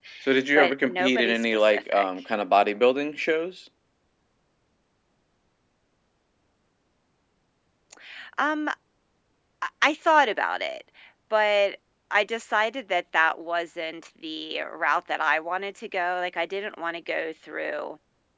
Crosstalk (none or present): present